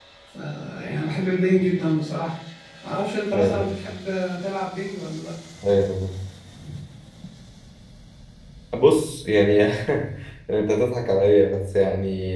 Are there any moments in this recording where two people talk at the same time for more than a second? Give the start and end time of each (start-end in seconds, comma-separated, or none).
none